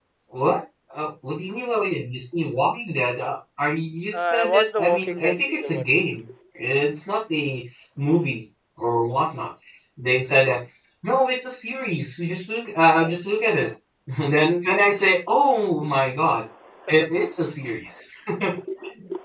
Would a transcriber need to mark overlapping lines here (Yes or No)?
Yes